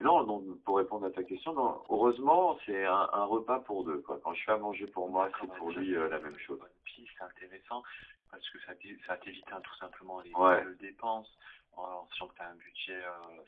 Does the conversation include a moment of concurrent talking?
Yes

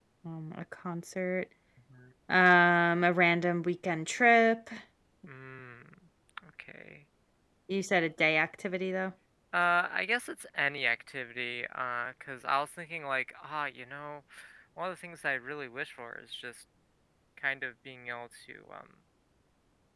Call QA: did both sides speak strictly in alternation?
Yes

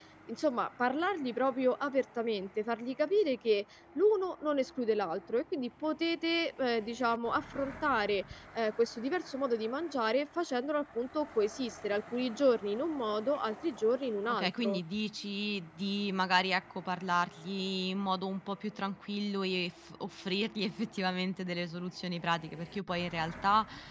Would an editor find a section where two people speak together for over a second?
No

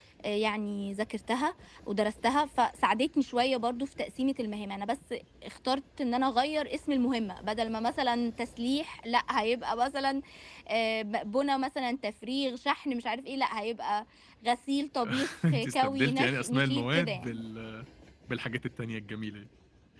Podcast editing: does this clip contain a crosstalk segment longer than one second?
Yes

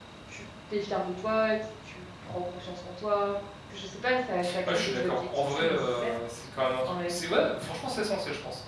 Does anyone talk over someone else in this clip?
Yes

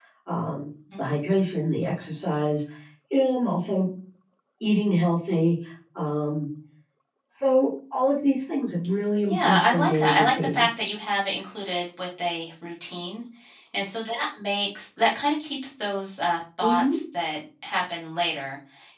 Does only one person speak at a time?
No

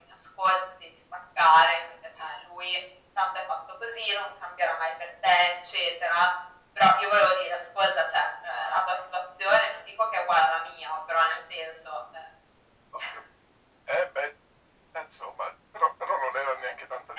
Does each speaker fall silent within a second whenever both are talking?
Yes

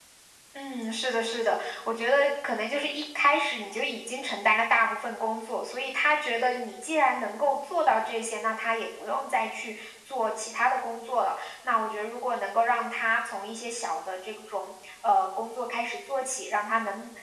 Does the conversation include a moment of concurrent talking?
No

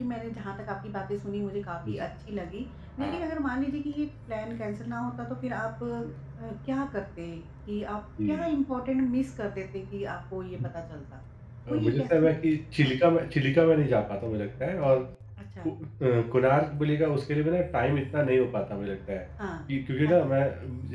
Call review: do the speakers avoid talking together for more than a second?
No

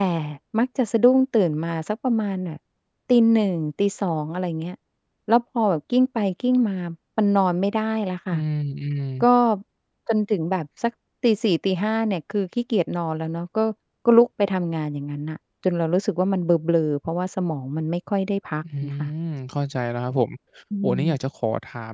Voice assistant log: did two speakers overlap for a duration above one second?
No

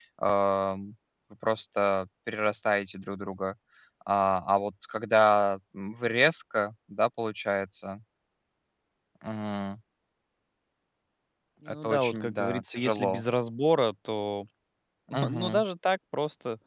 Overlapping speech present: Yes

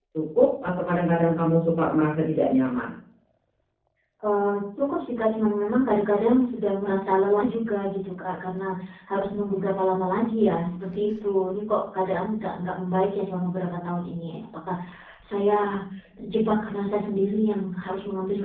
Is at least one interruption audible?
No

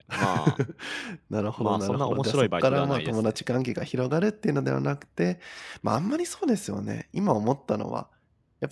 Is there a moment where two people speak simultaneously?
Yes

